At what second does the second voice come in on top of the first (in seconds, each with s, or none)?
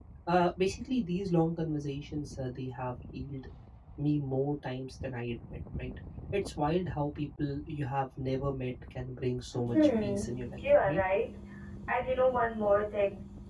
9.7 s